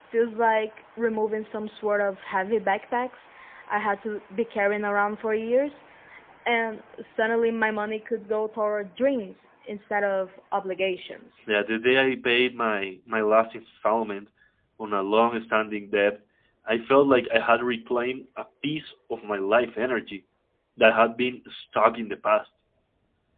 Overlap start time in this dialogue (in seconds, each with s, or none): none